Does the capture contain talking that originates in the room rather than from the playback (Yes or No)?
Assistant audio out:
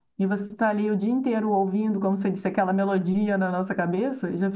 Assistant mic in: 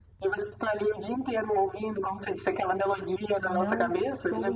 Yes